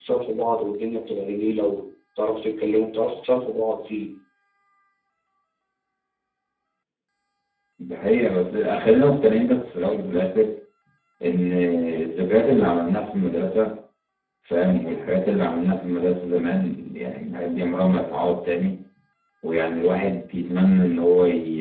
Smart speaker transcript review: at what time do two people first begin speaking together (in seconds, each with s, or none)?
none